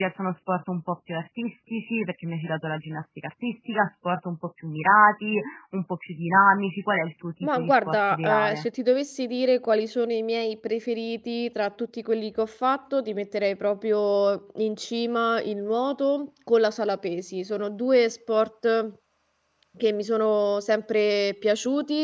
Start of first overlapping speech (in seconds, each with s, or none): 7.4 s